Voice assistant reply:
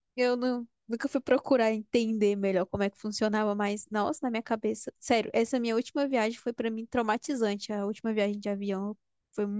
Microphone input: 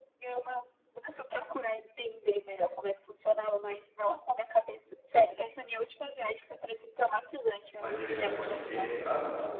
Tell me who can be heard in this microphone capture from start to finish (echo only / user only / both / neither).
both